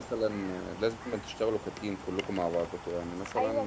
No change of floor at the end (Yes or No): No